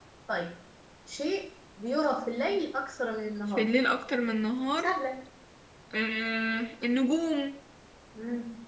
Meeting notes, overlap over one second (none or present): none